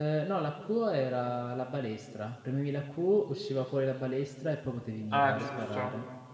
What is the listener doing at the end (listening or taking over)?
taking over